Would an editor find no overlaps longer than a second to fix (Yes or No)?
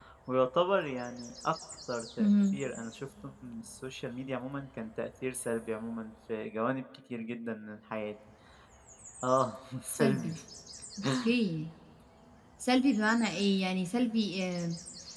Yes